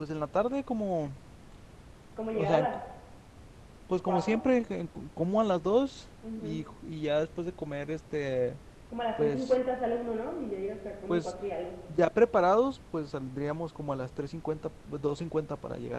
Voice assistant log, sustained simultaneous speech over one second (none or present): none